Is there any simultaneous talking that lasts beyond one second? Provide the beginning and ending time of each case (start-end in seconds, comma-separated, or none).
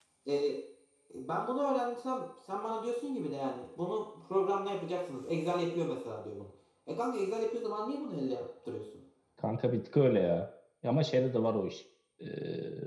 none